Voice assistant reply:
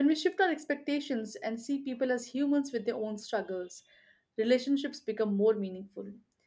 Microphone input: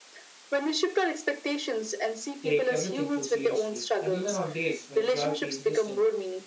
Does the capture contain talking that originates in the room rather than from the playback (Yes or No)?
Yes